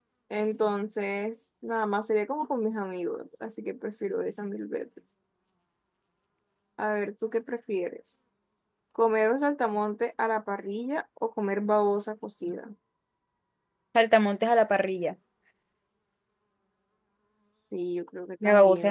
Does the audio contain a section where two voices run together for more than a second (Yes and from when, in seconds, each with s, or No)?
No